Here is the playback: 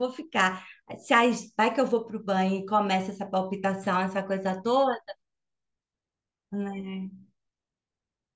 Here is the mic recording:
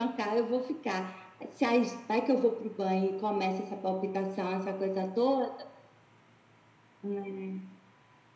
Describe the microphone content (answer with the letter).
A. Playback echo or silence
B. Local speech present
A